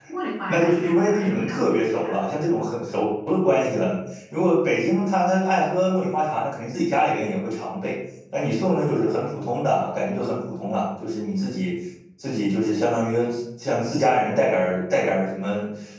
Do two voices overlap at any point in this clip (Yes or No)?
Yes